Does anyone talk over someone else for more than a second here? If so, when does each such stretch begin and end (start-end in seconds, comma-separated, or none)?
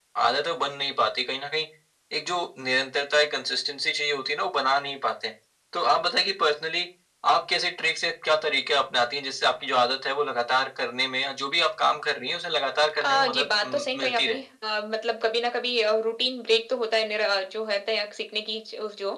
13.0-14.4